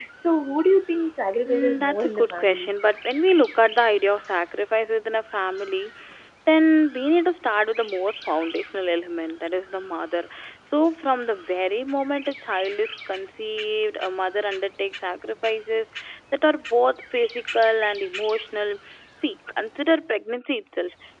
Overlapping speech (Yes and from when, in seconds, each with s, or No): Yes, from 1.4 s